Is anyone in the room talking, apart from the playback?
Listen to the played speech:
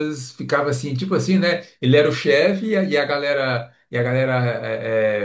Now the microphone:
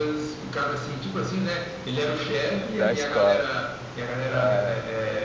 Yes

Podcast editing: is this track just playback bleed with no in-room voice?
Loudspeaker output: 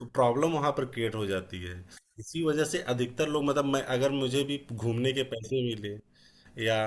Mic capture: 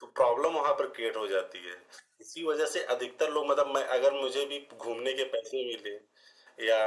Yes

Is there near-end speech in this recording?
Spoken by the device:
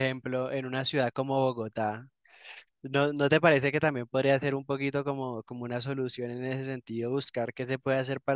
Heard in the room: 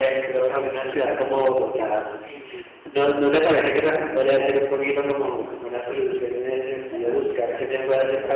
Yes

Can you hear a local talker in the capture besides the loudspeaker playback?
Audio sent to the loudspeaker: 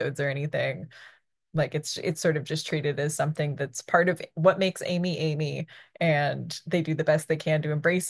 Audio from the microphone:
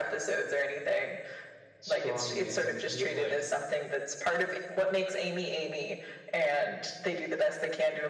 Yes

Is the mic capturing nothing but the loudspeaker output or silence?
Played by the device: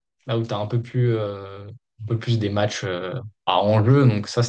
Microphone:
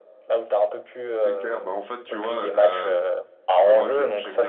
No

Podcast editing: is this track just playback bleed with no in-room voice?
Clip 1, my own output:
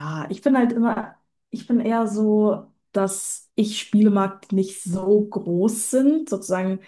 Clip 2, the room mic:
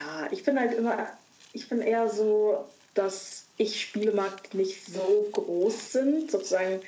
Yes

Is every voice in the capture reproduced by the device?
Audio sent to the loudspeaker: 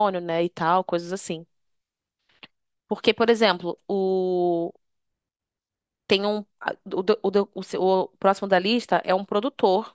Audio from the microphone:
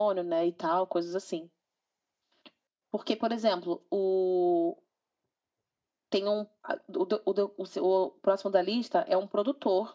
Yes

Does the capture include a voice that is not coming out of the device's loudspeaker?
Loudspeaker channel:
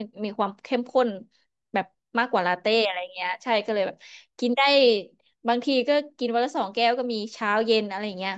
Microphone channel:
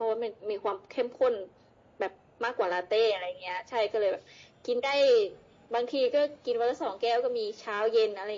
No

